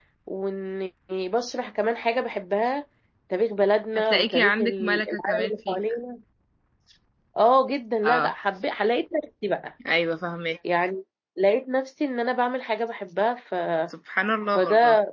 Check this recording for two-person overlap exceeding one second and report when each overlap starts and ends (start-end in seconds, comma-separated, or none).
4.0-6.0